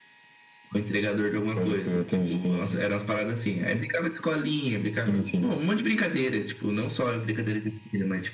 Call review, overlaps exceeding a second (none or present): present